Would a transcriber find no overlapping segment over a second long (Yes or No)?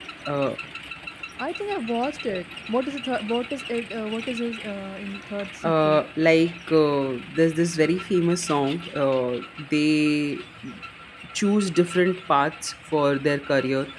Yes